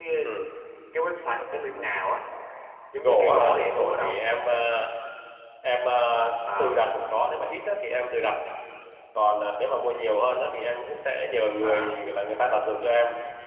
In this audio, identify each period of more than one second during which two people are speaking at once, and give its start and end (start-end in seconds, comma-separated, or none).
3.0-4.2